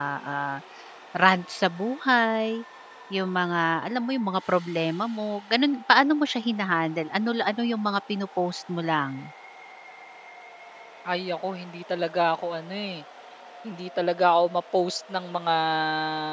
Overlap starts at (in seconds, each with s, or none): none